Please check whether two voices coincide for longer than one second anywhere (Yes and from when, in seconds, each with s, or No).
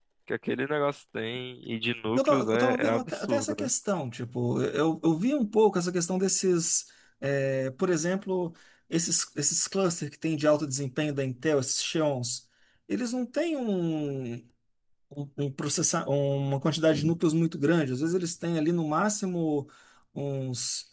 Yes, from 2.2 s